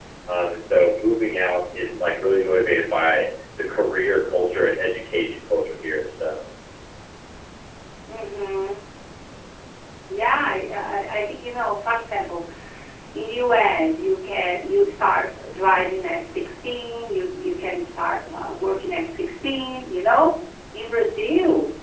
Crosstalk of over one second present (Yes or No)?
No